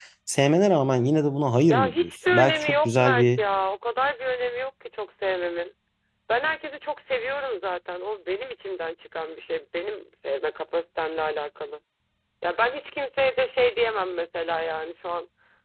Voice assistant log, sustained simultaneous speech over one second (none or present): present